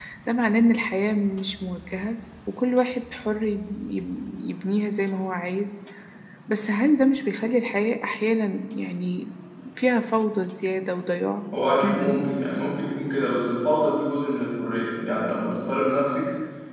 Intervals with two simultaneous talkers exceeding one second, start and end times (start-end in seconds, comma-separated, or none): none